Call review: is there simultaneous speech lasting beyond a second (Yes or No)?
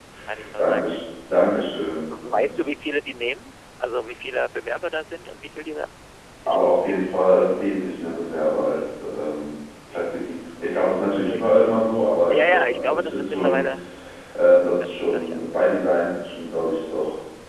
Yes